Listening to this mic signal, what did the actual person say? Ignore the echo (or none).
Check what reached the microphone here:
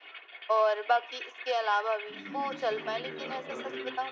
जी, समझ गया और